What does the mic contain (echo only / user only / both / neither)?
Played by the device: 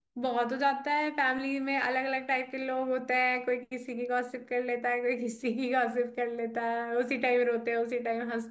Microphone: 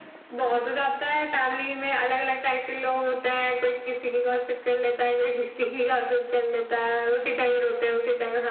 echo only